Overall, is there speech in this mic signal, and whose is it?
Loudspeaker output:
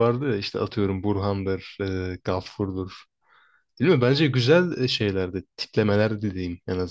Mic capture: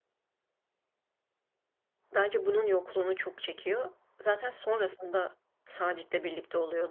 user only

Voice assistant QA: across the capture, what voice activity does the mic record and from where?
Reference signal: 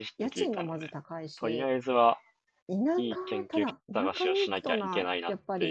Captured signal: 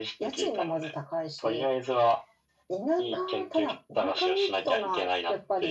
echo only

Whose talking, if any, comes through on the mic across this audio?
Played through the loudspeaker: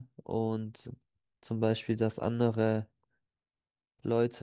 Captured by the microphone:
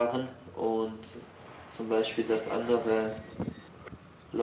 echo only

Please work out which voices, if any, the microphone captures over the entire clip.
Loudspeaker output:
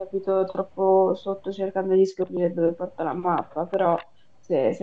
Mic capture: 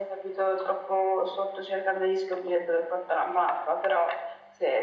echo only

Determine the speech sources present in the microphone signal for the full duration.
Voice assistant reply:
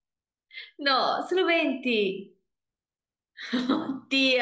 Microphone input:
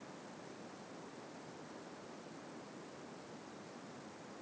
neither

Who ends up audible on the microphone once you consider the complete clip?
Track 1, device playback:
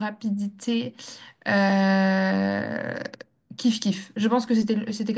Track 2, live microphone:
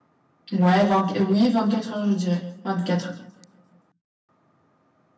user only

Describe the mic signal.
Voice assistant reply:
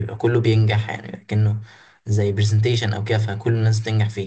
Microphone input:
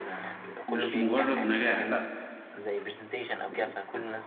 both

